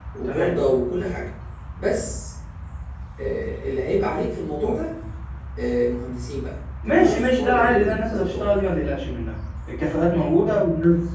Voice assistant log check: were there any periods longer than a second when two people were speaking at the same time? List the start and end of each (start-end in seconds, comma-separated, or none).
6.8-8.4